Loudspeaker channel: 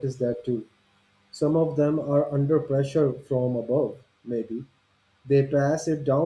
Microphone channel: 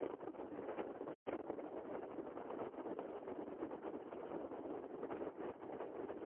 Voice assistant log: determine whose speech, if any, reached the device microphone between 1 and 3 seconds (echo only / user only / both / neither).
neither